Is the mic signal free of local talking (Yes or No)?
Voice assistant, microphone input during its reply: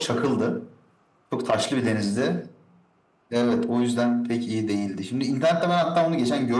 Yes